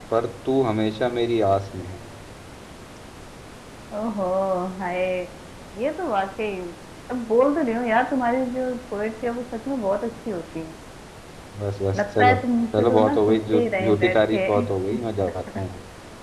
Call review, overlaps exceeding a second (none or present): present